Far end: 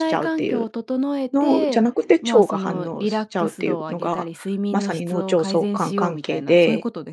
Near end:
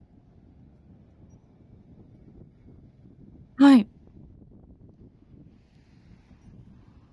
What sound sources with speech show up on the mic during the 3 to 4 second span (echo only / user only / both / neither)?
user only